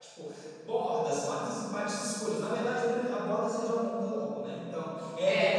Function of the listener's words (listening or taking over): listening